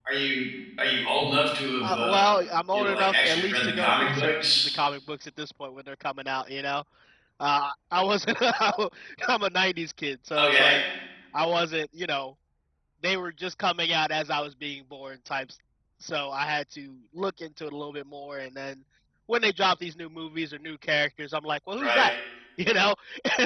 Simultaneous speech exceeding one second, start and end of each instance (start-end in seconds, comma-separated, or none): 2.7-4.7